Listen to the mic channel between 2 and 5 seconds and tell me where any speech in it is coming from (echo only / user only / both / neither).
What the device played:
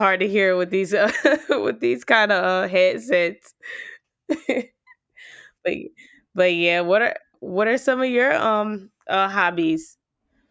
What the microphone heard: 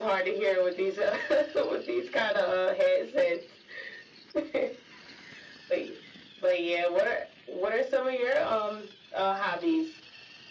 echo only